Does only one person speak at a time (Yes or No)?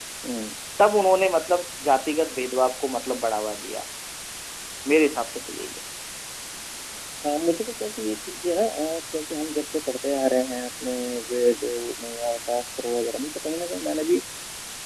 Yes